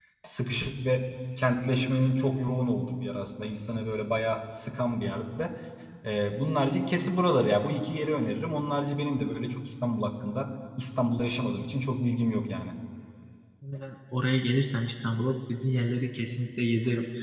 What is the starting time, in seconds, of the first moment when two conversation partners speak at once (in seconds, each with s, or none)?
none